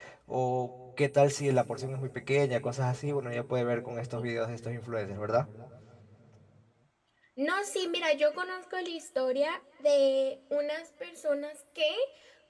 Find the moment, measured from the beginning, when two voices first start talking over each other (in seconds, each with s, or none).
none